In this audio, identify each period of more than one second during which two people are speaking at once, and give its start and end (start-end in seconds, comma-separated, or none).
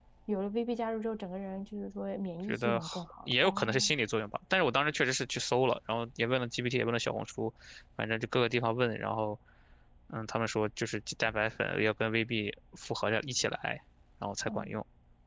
2.5-3.9